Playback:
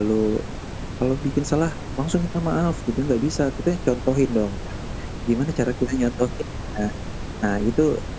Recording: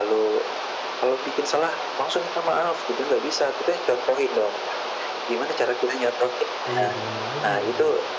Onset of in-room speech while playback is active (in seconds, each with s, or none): 6.7 s